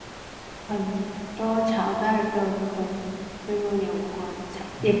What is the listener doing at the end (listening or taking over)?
taking over